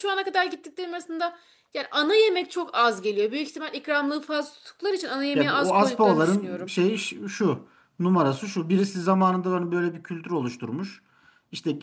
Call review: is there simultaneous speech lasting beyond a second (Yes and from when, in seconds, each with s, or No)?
Yes, from 5.3 s